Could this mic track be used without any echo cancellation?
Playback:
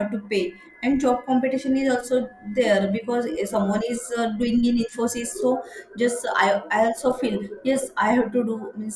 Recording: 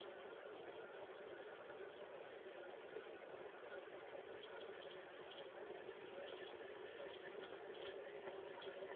Yes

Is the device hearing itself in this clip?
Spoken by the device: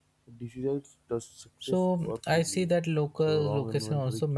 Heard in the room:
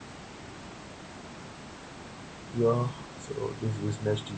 No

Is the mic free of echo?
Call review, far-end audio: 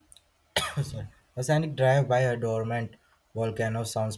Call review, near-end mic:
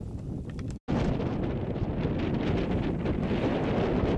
Yes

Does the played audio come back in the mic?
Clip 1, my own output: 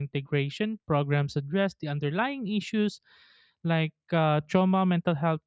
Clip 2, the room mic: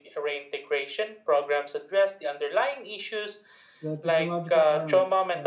Yes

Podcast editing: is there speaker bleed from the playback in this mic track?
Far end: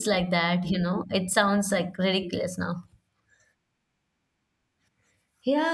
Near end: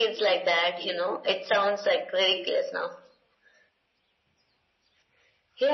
Yes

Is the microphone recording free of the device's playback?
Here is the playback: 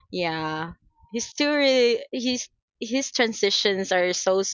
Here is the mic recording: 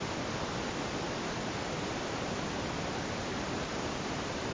Yes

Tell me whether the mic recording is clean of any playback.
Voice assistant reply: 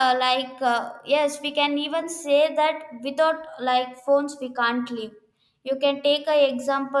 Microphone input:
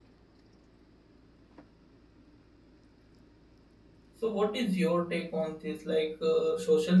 Yes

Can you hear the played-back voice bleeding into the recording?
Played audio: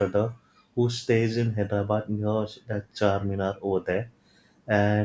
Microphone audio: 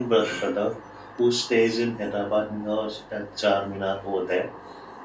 Yes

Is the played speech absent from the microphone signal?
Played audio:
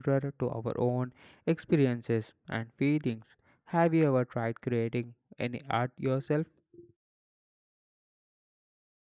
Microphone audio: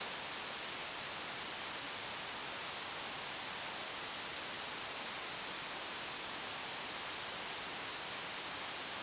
Yes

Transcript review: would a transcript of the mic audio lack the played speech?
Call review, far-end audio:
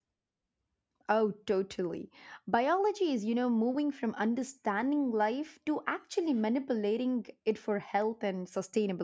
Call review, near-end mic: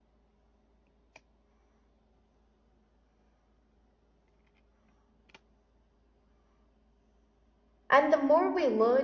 Yes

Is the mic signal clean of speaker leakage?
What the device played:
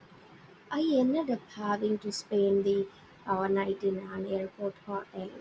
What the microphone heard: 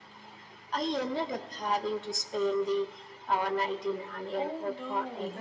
No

